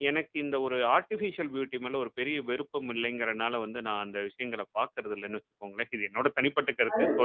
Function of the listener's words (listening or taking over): taking over